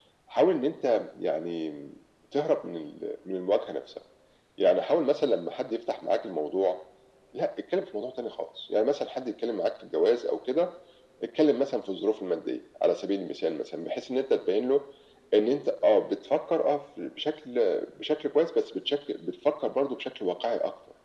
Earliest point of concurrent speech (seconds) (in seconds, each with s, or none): none